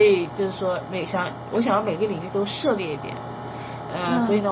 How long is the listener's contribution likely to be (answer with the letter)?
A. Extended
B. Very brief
B